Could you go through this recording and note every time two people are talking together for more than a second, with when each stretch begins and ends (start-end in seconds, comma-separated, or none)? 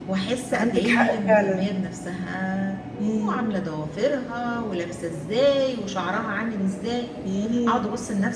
0.5-1.7